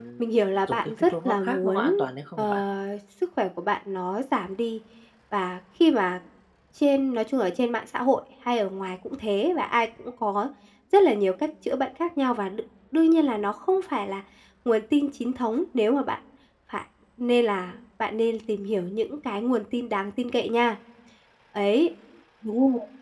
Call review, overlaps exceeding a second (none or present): present